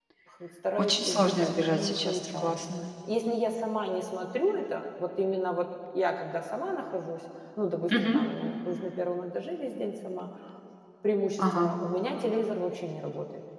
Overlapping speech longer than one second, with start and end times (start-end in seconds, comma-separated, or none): 0.8-2.6